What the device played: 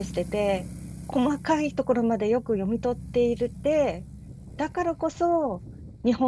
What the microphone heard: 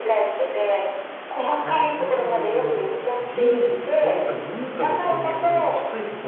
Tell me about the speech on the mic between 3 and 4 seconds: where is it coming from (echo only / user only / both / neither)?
both